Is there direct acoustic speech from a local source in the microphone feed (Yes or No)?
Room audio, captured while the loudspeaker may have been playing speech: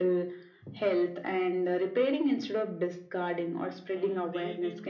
Yes